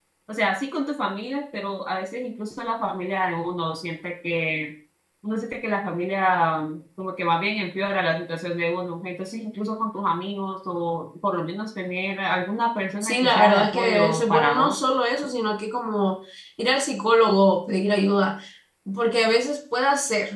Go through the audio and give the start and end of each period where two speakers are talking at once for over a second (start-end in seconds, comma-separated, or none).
13.0-14.8